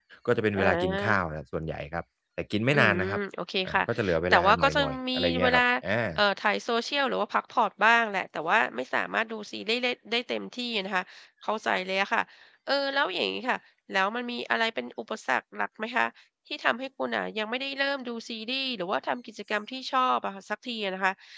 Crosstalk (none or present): present